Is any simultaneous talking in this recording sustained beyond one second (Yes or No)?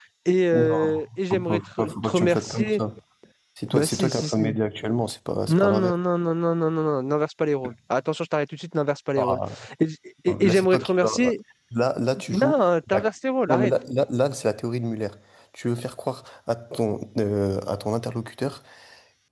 Yes